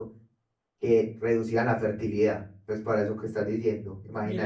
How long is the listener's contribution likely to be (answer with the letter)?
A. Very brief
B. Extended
B